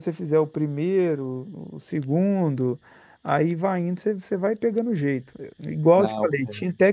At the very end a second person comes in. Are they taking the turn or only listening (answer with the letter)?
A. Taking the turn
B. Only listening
B